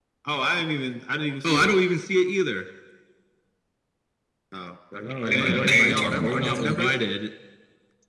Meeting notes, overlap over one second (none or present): present